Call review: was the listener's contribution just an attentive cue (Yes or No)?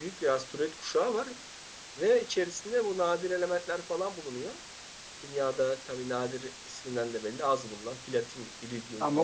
No